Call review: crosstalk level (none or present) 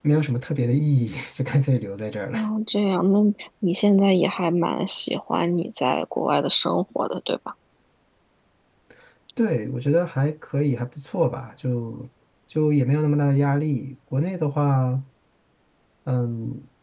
none